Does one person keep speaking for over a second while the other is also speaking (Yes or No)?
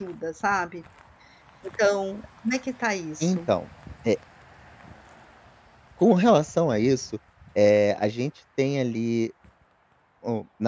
No